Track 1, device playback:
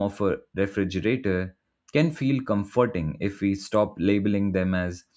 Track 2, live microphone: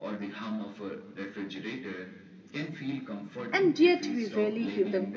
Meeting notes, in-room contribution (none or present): present